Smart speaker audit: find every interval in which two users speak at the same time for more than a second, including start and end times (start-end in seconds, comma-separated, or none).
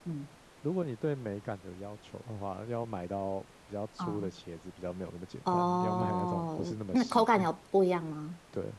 5.5-7.5